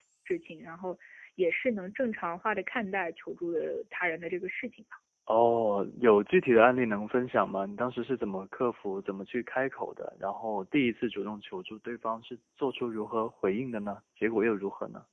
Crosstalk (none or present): none